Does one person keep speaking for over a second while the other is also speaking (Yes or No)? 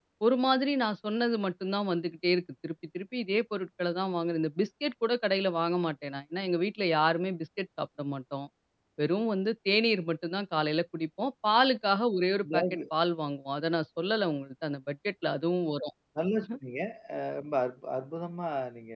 No